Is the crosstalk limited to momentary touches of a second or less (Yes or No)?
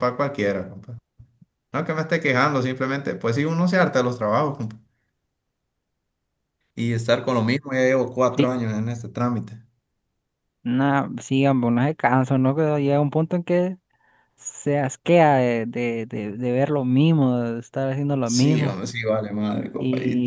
Yes